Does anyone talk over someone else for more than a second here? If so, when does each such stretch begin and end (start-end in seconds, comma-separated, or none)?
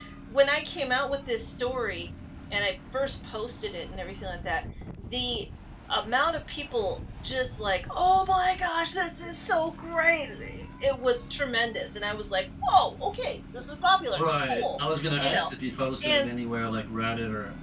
none